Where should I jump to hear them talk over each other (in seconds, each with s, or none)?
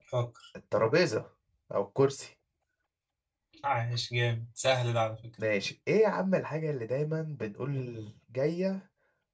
none